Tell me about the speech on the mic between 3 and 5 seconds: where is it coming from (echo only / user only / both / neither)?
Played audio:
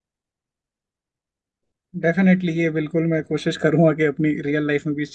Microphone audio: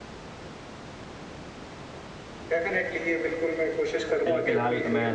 both